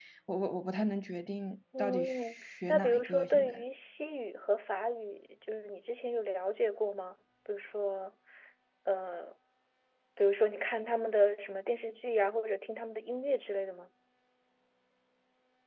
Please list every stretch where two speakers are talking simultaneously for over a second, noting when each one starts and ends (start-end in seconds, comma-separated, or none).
1.8-3.6